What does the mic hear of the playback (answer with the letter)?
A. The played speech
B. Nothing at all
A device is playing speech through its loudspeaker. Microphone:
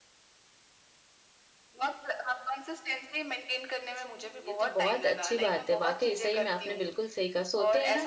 A